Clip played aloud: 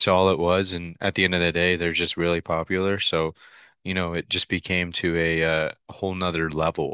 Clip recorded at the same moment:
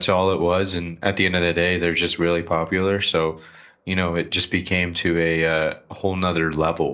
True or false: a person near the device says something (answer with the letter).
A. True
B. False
B